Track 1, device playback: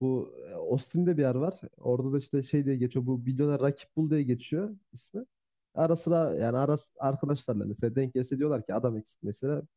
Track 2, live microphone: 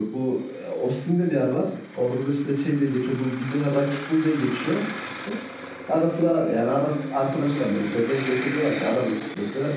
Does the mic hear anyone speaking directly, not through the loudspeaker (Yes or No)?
No